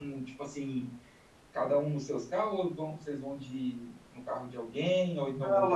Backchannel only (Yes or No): No